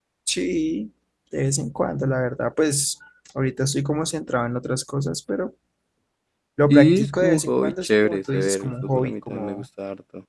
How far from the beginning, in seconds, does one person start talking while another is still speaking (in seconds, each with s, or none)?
6.7 s